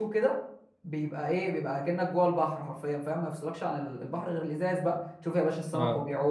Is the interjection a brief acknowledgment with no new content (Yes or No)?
Yes